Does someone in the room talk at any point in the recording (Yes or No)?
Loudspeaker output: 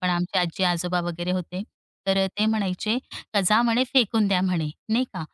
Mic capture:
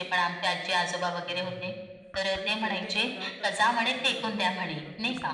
Yes